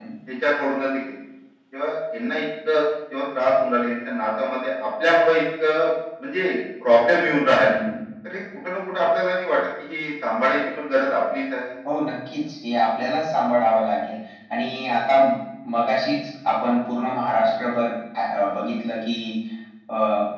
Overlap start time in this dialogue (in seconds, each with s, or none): none